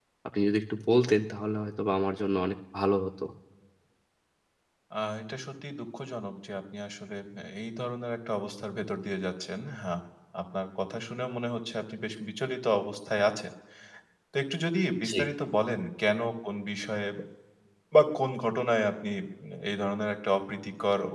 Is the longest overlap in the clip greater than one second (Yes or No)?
No